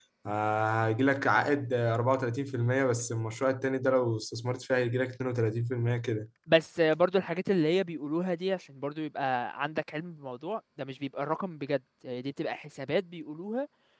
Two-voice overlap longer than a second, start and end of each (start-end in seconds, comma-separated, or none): none